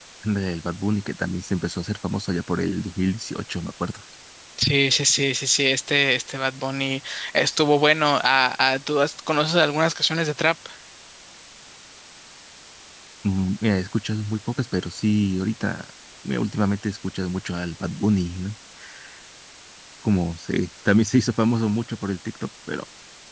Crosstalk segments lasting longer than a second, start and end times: none

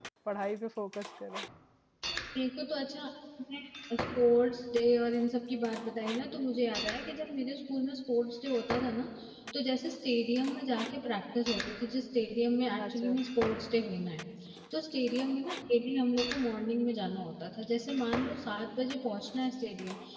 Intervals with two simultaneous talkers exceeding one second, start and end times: none

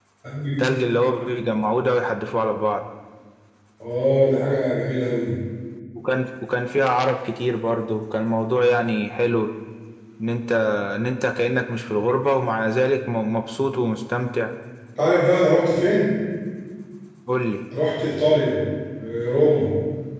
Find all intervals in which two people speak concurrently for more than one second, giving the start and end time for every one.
none

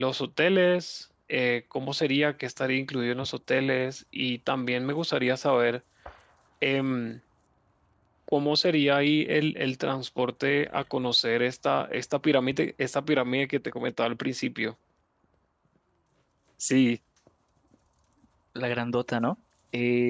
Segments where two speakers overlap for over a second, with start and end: none

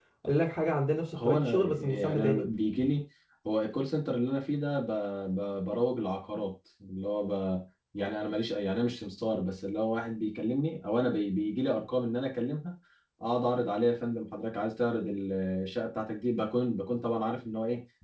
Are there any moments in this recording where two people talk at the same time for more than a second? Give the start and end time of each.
1.2-2.4

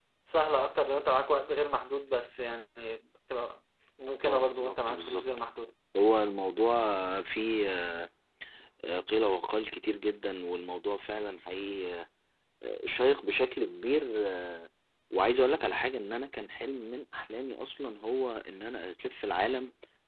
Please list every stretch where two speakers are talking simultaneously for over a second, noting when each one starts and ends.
4.2-5.4

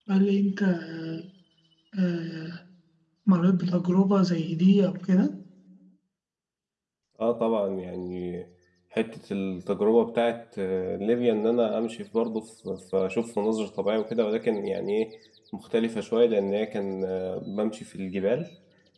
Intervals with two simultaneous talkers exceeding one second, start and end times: none

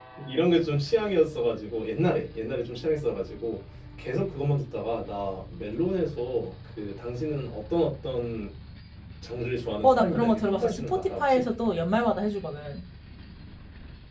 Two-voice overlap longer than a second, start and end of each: 9.8-11.4

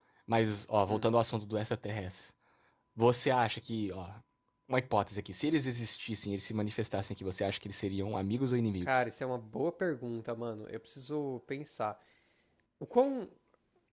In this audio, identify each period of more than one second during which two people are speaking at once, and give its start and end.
none

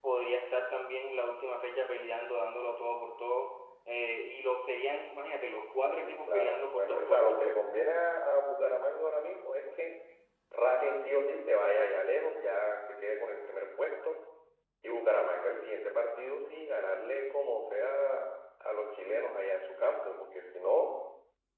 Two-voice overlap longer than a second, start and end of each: 5.9-7.4

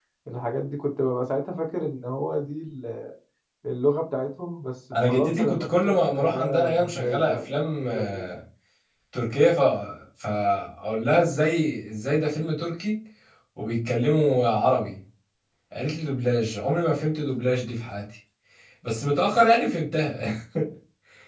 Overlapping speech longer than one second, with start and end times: 5.1-8.2

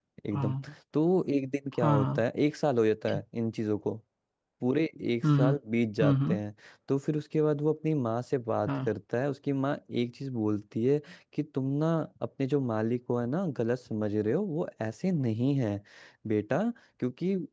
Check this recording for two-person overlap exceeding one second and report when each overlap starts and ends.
none

